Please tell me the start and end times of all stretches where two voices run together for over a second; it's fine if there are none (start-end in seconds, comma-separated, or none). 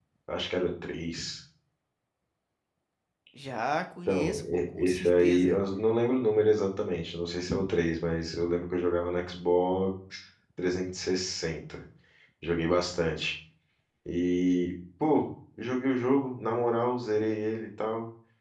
4.1-5.6